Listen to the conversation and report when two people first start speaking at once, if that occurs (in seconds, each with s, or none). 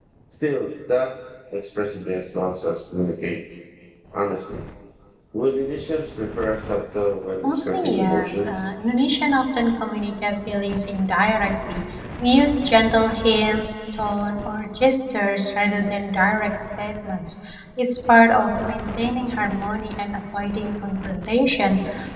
7.4 s